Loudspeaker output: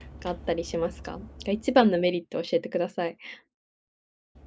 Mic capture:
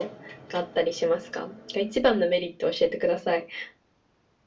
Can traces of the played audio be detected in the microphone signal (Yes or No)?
Yes